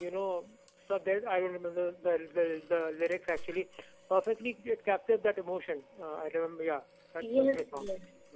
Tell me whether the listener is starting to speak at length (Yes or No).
Yes